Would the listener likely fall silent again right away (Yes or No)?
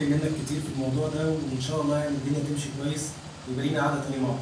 No